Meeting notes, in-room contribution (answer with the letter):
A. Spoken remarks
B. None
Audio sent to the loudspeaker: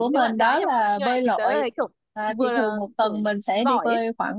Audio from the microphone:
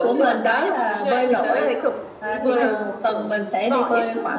A